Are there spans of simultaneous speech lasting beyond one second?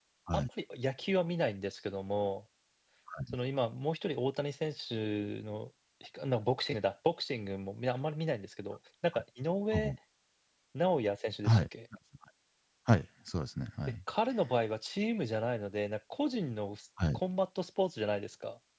No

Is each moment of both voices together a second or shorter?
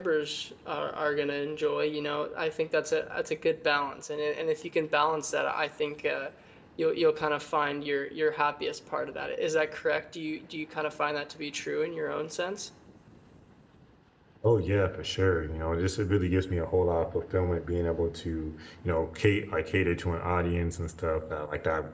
Yes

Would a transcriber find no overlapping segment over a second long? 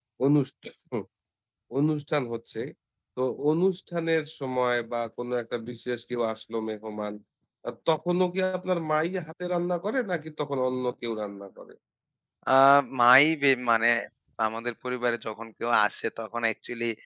Yes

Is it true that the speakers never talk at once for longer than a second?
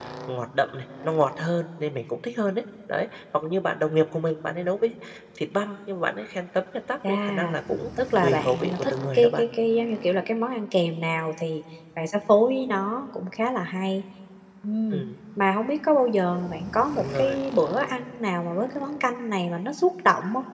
No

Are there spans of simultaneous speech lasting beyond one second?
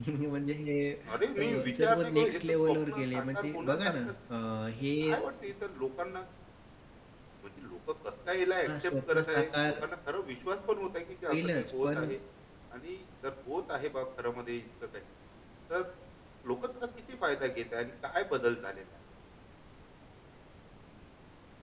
Yes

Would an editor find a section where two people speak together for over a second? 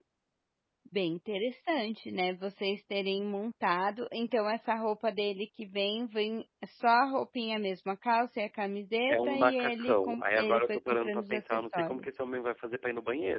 Yes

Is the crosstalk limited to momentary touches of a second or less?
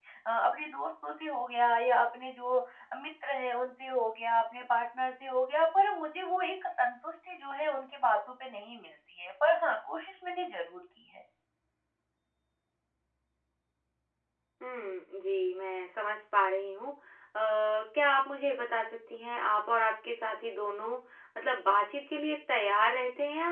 Yes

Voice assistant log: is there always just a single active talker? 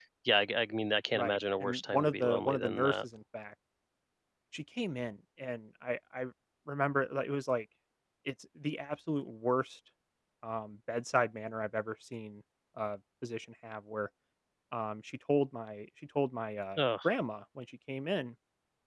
No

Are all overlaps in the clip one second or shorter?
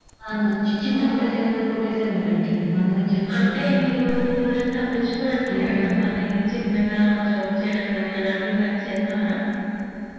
Yes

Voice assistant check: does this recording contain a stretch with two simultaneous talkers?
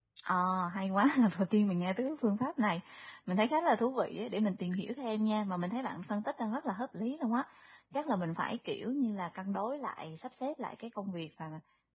No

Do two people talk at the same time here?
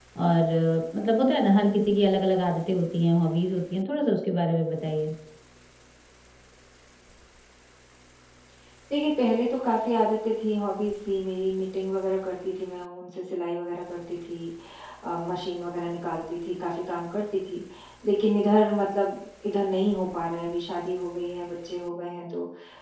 No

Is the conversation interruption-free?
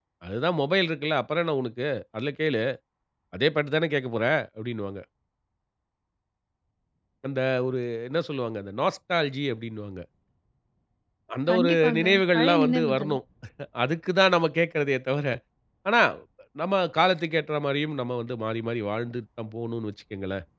No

